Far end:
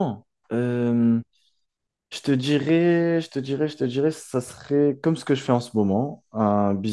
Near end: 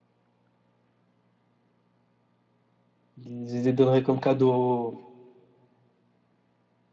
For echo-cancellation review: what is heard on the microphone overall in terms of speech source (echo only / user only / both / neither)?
user only